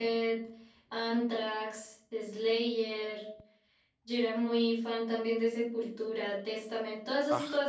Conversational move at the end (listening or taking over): listening